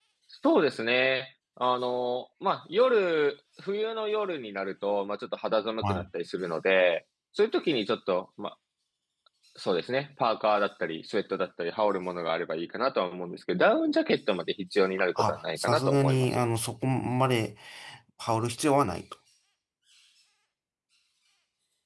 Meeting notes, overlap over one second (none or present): present